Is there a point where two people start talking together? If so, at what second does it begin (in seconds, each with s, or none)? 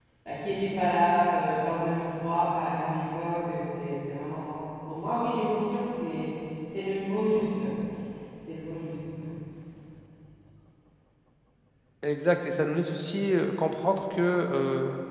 none